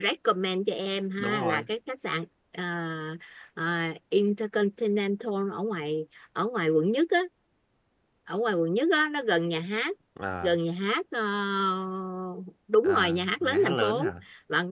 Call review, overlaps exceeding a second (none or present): present